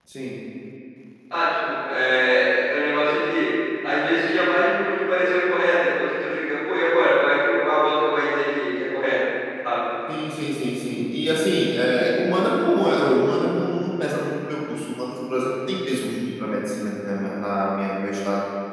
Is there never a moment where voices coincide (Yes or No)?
Yes